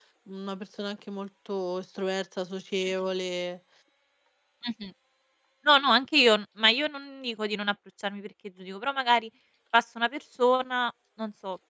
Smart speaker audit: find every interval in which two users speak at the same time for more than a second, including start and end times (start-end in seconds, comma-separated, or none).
none